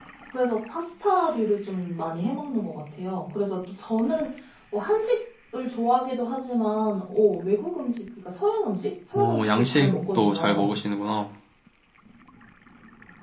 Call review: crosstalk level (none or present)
present